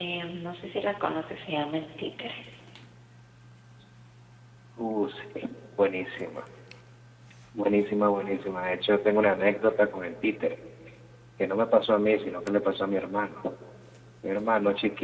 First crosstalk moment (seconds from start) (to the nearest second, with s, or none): none